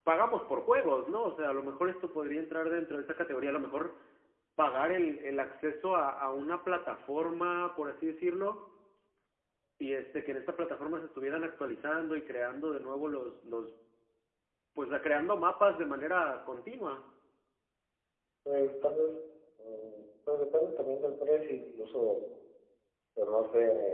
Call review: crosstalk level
none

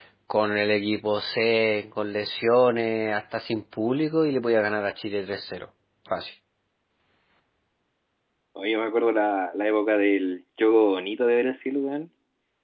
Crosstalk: none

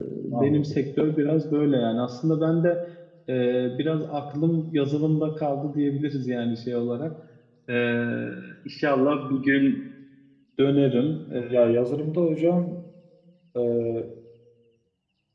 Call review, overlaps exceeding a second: none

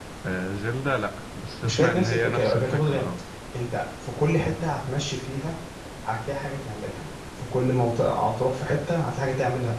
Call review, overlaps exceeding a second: present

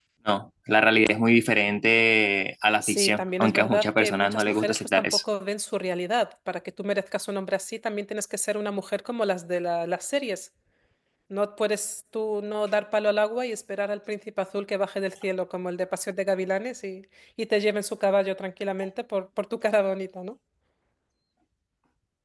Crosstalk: present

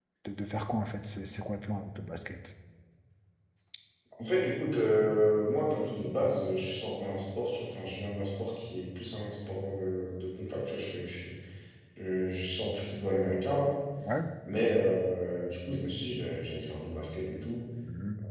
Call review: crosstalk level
none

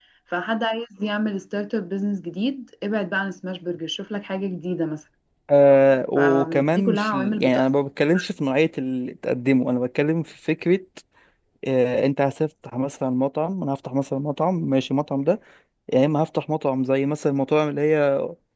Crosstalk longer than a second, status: present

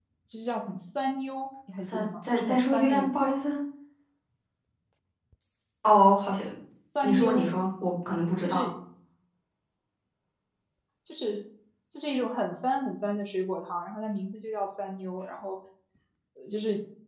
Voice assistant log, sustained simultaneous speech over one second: present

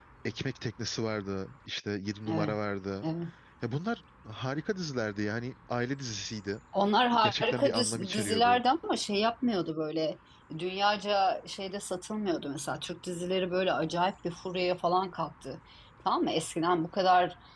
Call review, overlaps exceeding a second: present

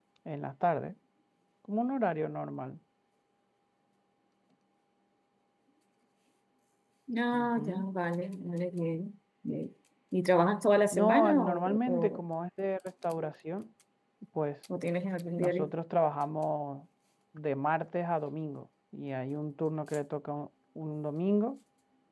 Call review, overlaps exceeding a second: present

